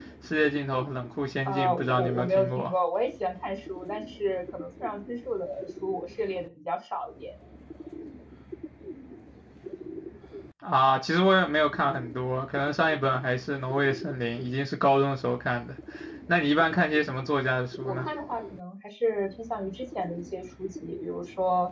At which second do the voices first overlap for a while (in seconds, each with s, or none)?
1.4 s